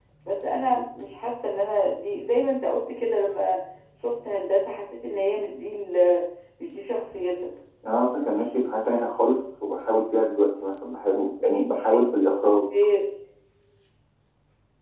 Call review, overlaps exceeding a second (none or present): none